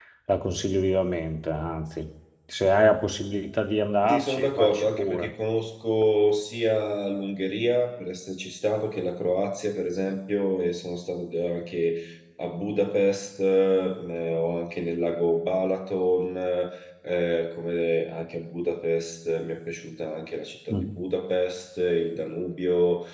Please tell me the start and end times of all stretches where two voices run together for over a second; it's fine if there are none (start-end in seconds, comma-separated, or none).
4.1-5.3